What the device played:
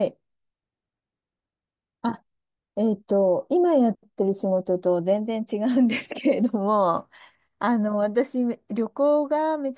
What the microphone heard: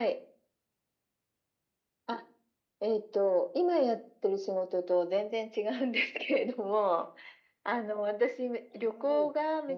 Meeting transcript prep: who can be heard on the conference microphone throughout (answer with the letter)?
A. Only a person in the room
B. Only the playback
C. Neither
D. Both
D